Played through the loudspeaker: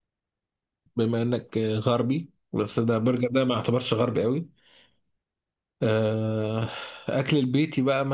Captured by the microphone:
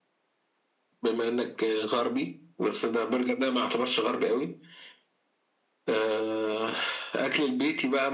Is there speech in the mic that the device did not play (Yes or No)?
No